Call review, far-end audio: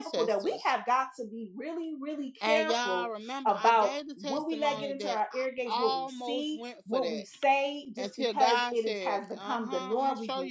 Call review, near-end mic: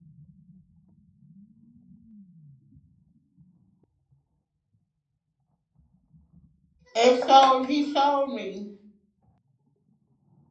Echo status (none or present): none